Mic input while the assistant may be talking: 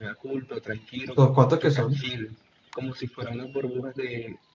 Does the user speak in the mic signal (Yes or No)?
Yes